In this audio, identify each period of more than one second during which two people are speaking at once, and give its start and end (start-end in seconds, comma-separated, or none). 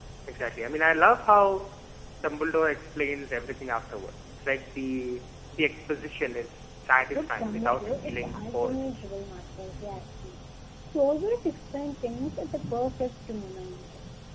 7.0-8.9